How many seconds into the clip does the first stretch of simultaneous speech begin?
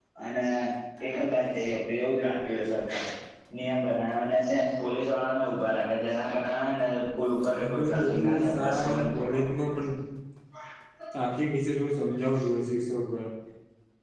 7.6 s

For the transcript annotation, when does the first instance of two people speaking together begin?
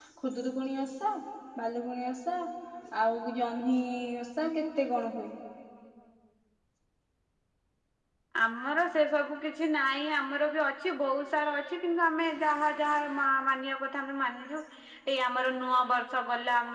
none

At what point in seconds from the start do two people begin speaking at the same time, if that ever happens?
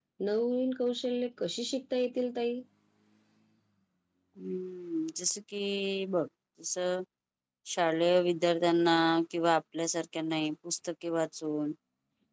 none

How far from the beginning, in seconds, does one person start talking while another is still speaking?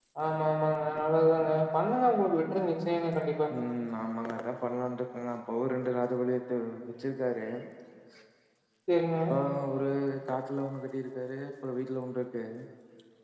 none

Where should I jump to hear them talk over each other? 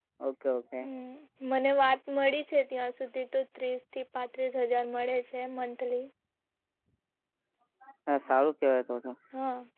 none

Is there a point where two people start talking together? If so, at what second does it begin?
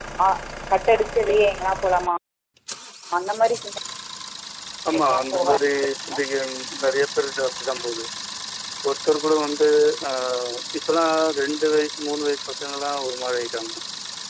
4.9 s

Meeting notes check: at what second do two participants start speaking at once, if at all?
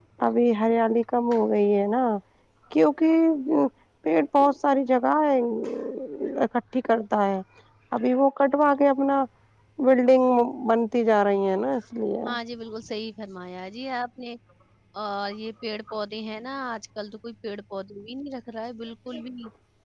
none

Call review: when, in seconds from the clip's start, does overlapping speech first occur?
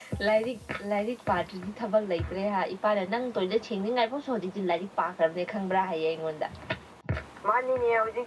none

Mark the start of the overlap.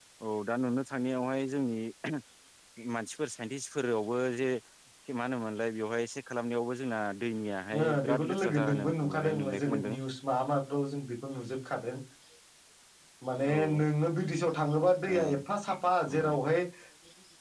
7.8 s

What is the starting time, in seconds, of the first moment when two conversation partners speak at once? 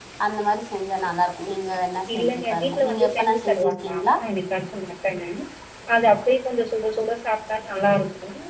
2.1 s

